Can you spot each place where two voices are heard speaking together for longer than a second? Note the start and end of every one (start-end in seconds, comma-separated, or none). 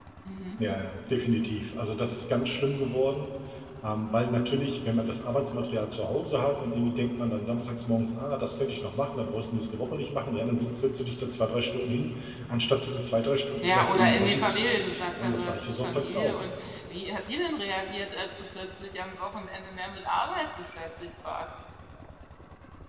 13.6-16.4